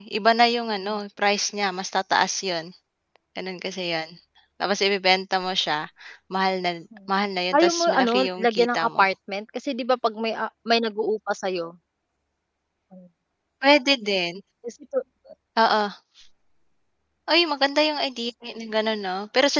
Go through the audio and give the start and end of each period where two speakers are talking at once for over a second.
7.5-9.1

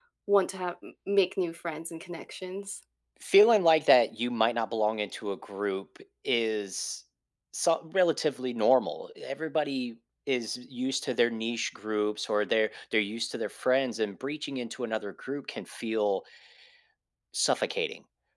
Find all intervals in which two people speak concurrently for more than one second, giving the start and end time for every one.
none

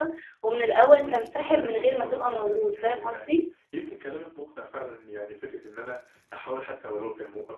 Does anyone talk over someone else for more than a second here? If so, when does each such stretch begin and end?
1.6-3.4

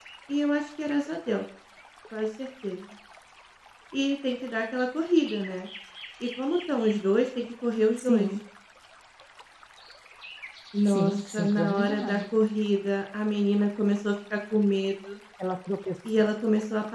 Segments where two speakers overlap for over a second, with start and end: 10.8-12.2

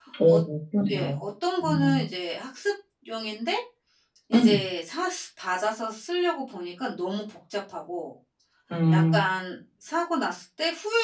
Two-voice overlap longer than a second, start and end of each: none

